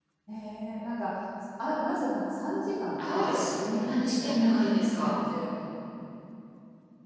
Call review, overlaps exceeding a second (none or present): present